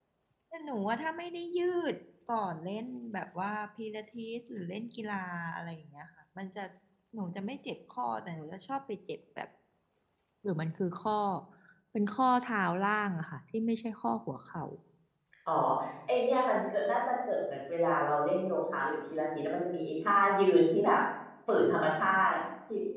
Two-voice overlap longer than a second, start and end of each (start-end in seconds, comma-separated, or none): none